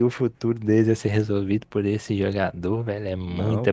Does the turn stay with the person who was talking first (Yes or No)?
No